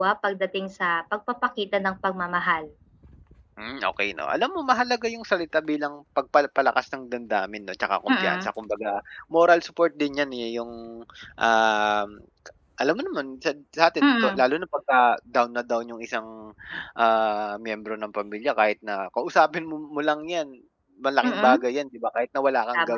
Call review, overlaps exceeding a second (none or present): none